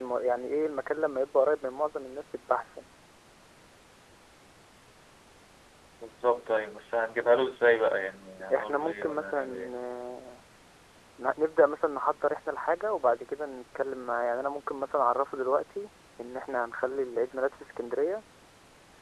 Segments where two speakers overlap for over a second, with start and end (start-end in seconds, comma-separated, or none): 8.5-9.8